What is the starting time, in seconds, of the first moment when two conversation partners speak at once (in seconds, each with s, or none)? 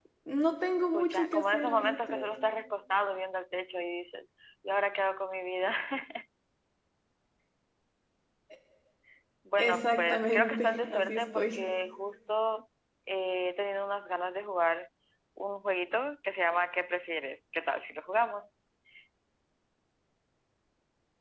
0.9 s